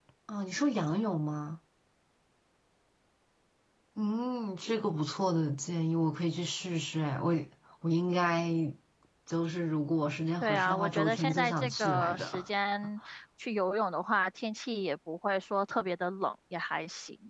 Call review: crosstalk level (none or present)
present